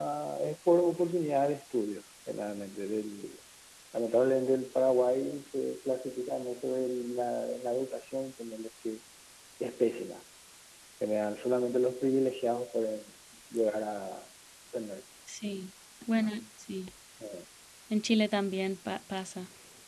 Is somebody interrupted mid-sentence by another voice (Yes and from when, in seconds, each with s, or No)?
No